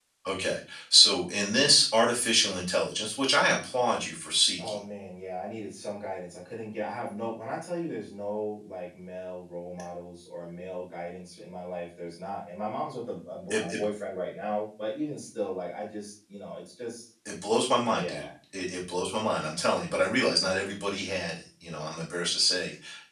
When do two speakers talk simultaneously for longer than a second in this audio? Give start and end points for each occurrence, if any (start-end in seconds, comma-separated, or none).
none